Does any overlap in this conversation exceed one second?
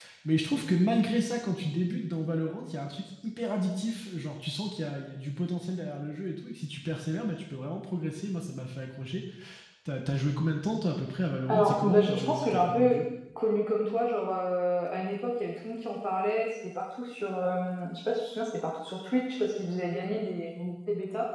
Yes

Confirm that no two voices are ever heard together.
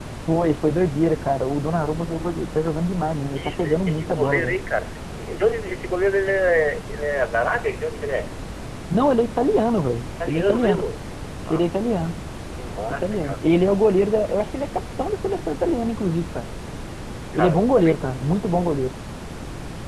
No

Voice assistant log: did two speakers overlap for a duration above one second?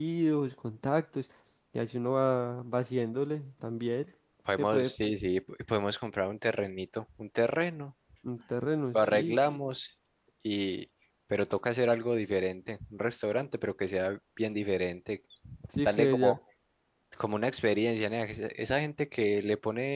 No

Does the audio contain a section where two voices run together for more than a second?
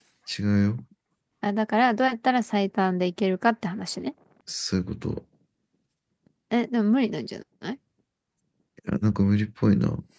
No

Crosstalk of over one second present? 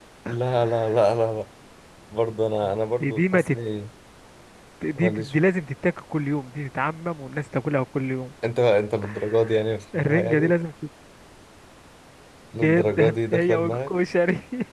Yes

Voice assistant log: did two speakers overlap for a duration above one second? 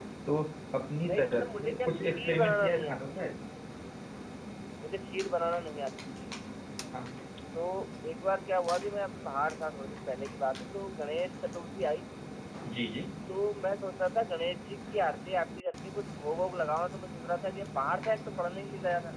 Yes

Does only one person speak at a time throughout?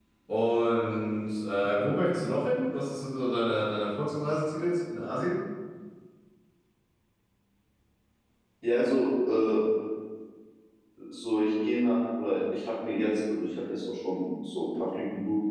Yes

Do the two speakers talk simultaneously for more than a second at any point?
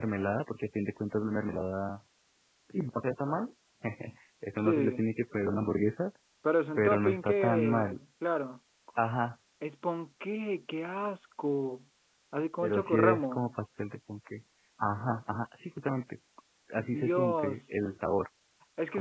Yes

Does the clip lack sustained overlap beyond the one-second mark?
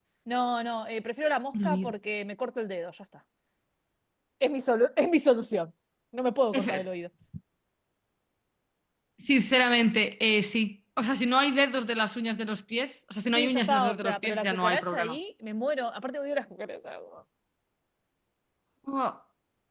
No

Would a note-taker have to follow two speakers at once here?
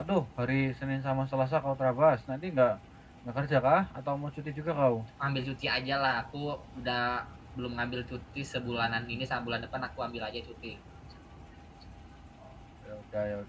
No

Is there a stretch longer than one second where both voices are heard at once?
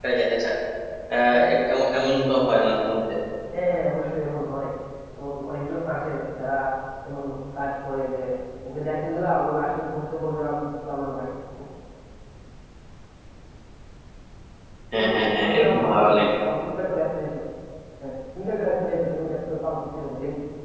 Yes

